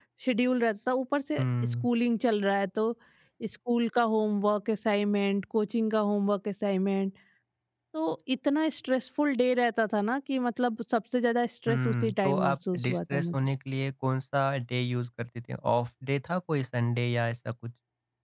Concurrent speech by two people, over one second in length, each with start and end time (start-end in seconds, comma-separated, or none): 11.7-13.4